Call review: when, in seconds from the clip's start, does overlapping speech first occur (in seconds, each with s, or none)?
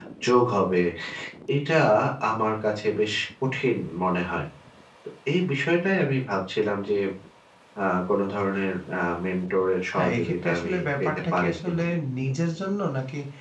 10.0 s